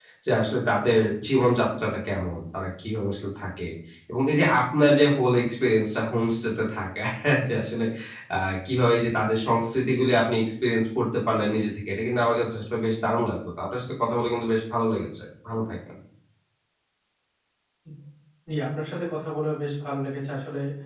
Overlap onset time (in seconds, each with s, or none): none